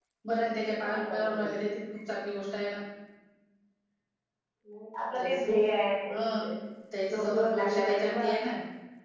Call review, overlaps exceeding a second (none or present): present